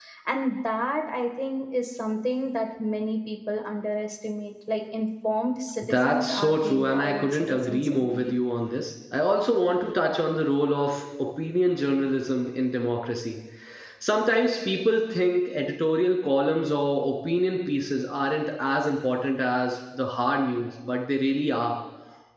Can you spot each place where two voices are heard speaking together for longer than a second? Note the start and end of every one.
5.8-8.3

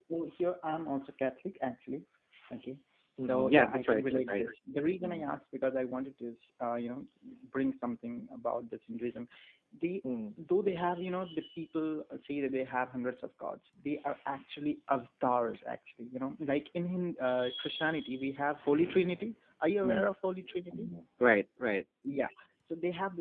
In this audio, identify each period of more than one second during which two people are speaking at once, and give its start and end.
3.2-4.4

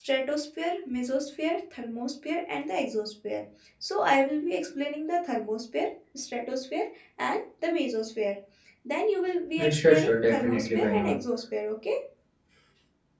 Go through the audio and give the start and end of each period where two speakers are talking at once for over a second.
9.6-11.1

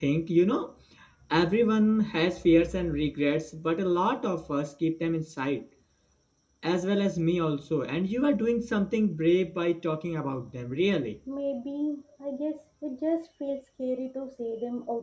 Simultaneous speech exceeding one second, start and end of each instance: none

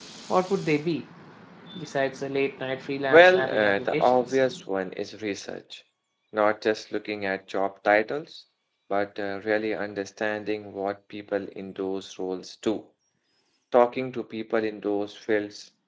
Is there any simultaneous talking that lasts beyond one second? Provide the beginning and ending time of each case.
3.1-4.4

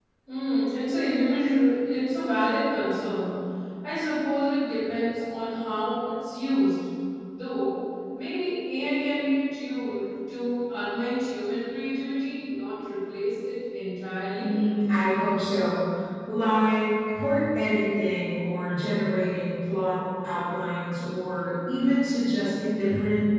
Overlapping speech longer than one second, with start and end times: none

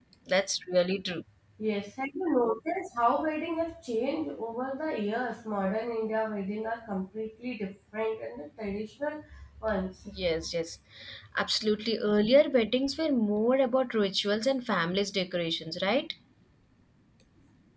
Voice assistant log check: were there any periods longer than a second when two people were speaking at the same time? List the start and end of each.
none

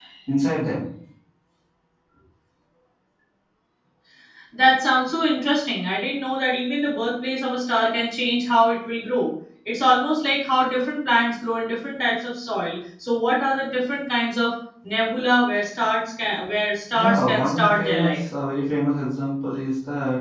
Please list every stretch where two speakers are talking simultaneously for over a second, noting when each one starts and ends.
16.9-18.2

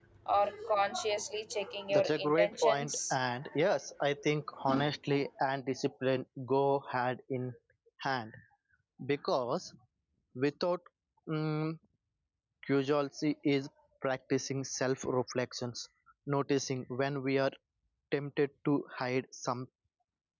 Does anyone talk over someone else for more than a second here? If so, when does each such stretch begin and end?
1.9-3.1

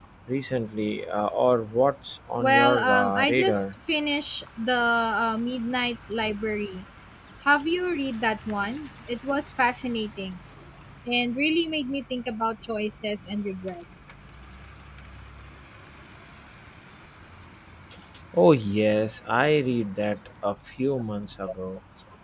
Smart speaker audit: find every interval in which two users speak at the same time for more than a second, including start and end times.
2.4-3.6

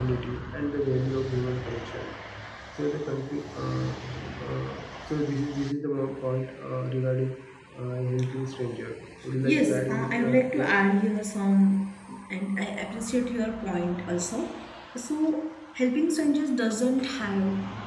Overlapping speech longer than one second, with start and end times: 9.4-10.7

